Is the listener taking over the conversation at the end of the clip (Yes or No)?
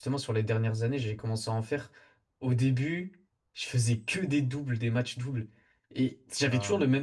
No